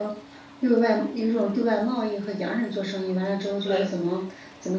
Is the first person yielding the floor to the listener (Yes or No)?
No